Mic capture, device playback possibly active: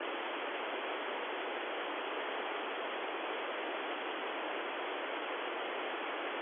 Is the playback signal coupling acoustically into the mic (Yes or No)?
No